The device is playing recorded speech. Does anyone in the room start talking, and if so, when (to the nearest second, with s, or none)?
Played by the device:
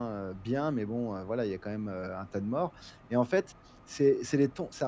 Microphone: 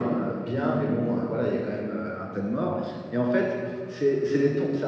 none